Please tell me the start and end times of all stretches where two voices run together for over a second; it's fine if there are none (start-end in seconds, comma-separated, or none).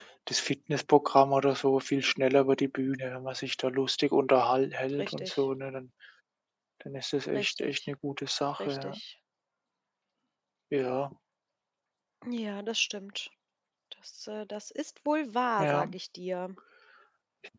none